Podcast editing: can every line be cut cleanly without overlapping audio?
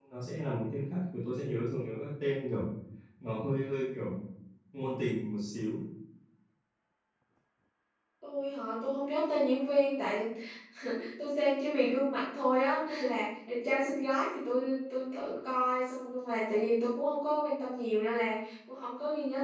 Yes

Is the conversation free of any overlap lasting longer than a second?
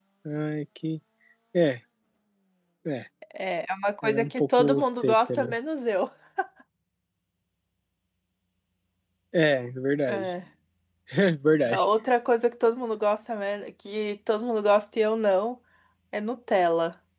No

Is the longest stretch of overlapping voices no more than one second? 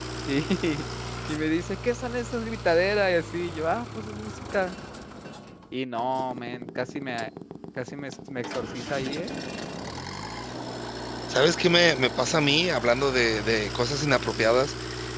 Yes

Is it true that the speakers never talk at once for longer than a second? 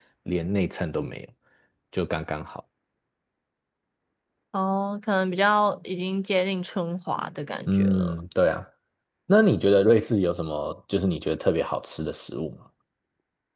Yes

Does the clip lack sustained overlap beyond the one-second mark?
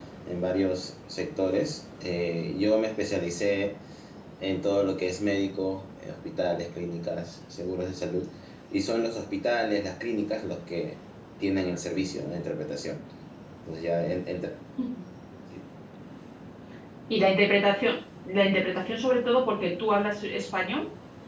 Yes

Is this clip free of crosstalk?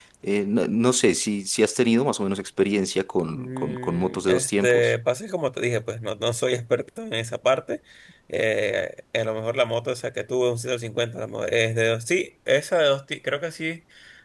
No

